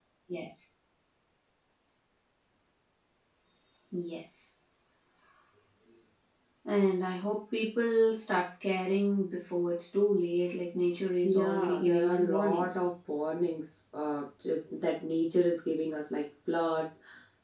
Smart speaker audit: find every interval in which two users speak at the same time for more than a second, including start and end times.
11.2-12.9

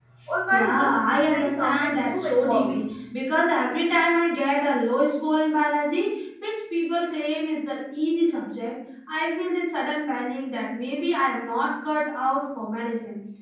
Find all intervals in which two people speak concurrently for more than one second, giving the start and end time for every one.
0.5-2.8

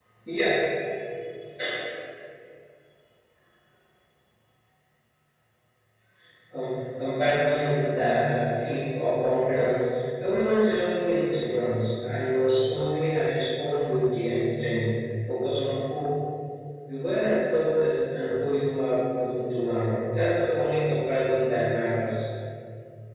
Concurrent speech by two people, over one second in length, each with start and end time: none

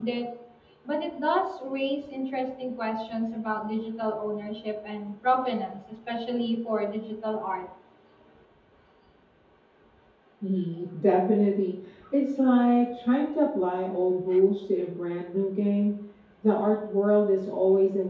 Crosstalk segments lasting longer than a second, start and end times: none

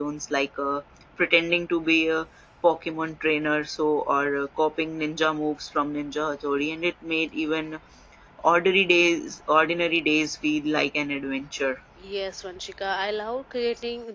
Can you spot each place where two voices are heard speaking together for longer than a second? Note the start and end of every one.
none

